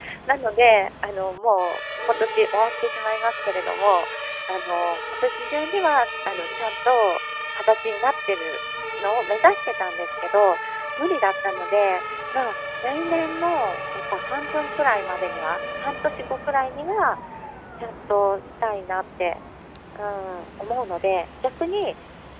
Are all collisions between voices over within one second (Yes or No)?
Yes